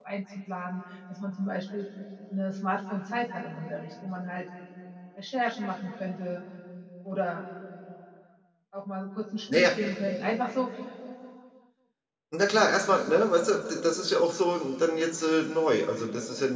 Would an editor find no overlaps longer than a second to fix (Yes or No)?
Yes